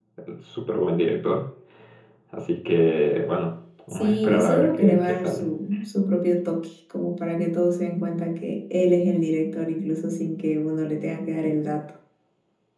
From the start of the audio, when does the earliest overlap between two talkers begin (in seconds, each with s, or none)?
3.9 s